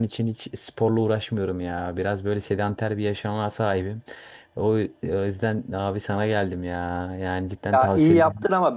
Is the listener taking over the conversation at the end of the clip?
Yes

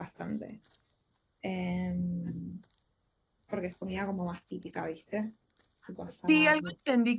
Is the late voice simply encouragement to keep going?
No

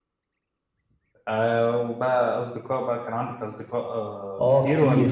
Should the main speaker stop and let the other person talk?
Yes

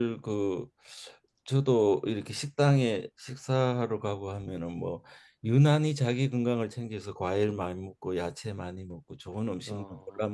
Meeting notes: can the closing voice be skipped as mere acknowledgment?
Yes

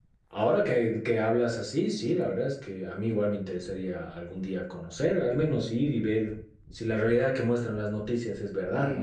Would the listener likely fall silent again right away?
No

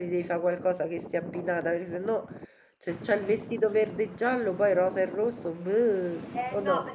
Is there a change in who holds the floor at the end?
Yes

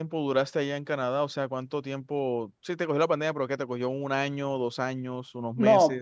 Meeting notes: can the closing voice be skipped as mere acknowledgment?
No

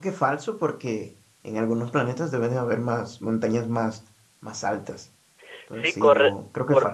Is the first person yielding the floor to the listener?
Yes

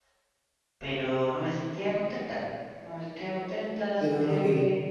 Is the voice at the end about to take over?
Yes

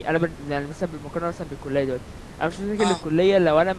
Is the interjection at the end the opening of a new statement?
No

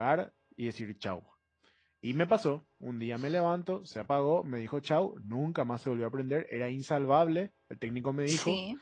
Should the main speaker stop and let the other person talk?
No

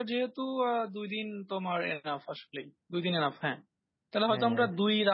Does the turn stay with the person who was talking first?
Yes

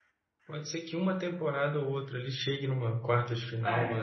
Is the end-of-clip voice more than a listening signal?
No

